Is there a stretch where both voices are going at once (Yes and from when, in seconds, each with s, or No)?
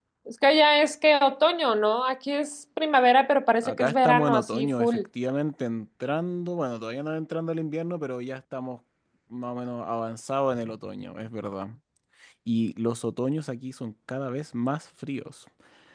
Yes, from 3.6 s